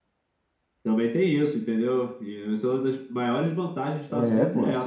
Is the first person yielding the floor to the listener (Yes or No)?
Yes